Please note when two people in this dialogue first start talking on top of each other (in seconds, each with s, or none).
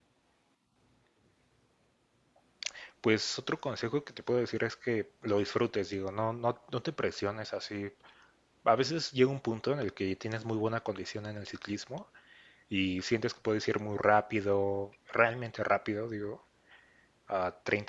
none